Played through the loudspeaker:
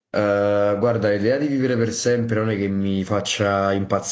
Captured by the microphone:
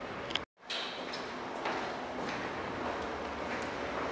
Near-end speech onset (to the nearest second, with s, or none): none